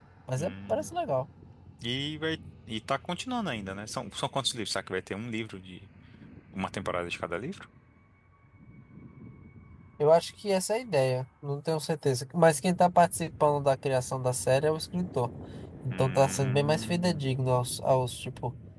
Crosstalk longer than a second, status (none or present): present